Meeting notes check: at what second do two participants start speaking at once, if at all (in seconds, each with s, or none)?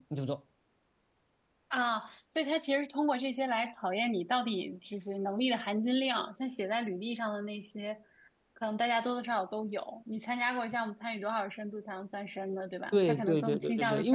12.9 s